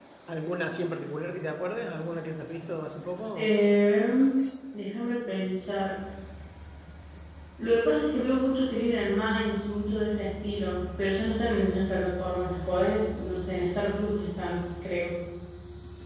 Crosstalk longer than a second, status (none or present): none